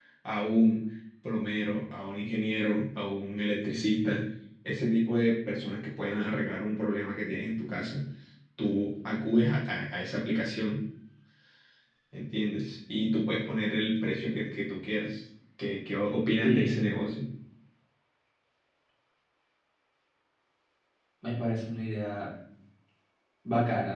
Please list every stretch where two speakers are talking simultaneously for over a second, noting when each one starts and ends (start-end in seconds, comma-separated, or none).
none